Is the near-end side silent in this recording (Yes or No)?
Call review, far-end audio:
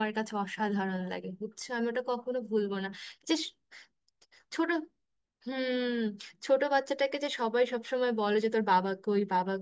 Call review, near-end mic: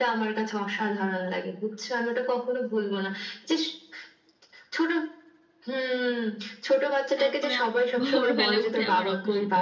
No